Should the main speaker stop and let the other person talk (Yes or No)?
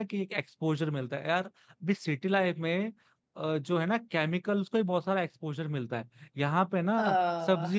No